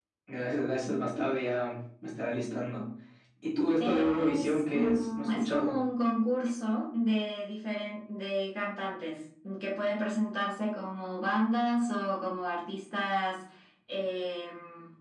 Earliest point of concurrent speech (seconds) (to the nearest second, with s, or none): 4 s